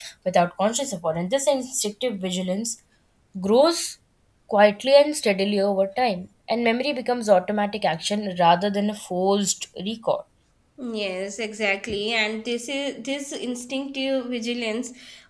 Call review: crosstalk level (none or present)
none